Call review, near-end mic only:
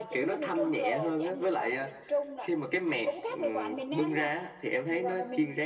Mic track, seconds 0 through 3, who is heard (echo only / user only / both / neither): echo only